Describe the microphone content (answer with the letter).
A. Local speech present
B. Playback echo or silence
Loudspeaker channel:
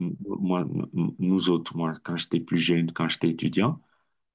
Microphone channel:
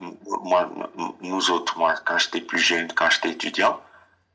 B